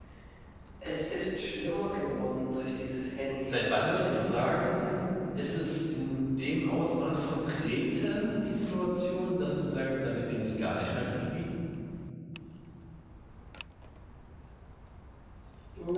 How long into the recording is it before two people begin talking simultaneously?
3.5 s

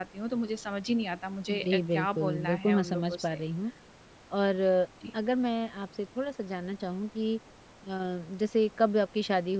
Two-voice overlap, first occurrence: 1.5 s

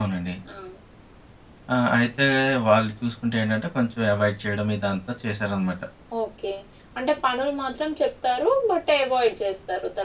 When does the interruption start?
none

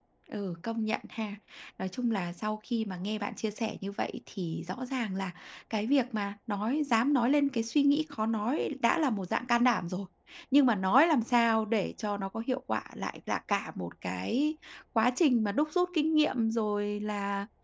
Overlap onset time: none

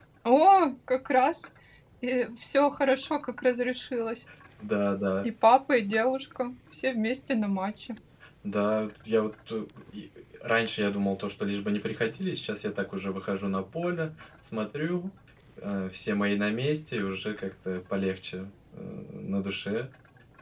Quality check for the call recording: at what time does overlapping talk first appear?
none

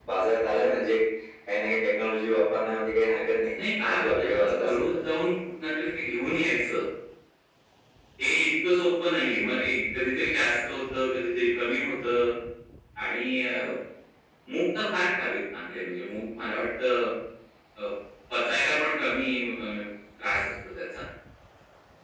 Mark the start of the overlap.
3.5 s

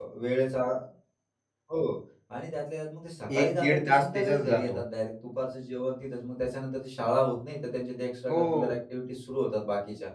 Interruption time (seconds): 3.3 s

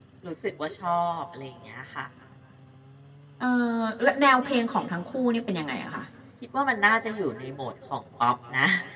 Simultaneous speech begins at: none

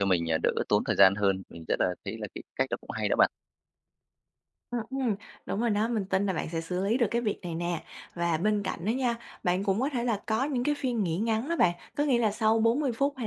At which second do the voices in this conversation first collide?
none

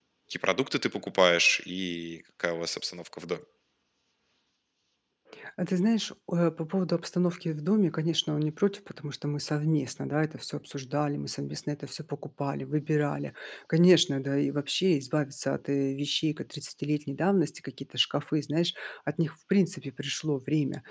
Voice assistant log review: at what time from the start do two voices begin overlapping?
none

